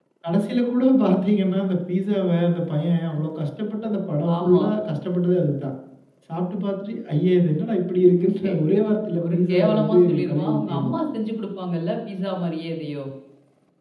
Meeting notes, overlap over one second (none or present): present